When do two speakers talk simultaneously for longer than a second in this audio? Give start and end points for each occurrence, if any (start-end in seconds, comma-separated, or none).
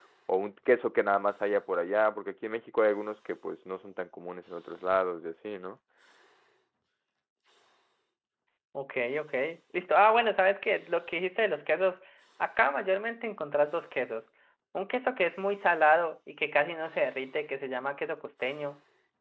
none